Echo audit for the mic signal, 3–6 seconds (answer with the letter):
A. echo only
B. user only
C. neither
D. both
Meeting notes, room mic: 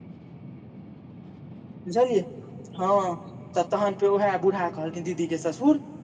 B